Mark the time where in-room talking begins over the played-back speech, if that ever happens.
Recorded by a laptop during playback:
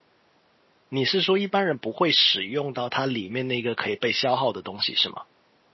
1 s

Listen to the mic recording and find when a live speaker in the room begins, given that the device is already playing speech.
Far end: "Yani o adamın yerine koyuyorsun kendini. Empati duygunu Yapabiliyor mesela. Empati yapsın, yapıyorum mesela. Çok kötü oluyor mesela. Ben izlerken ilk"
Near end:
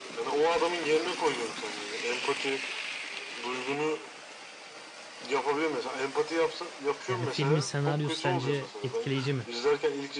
7 s

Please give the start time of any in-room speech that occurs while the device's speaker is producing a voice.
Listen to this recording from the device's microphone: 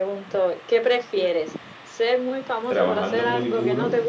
3 s

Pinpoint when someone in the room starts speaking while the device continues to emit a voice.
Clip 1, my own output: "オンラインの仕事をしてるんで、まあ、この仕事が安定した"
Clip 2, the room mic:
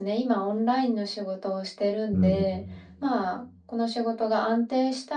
2 s

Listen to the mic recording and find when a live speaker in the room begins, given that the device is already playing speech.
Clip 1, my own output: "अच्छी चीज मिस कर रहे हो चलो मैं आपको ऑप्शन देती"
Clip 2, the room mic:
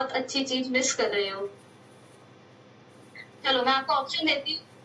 none

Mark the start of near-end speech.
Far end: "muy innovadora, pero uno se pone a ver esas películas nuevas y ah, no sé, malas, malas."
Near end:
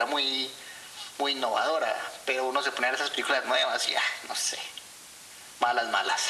none

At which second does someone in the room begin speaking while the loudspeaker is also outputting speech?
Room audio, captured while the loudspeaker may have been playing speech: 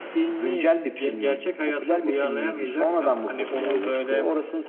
none

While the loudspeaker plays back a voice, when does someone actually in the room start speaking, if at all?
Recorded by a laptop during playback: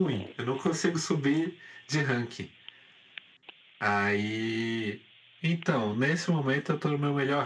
none

